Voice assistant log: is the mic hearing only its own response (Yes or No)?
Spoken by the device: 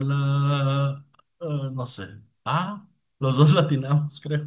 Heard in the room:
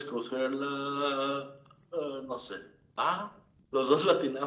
Yes